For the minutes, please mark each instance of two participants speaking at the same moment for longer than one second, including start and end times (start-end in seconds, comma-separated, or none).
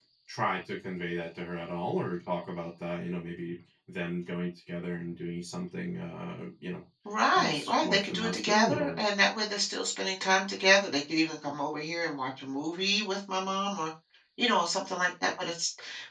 7.3-9.0